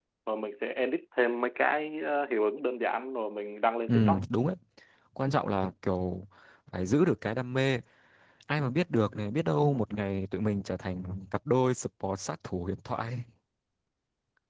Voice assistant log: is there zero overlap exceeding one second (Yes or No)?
Yes